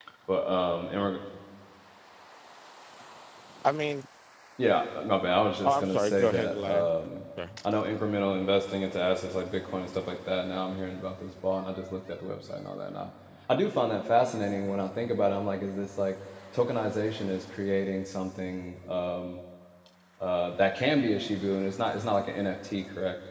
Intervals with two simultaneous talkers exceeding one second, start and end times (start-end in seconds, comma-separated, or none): 5.6-6.9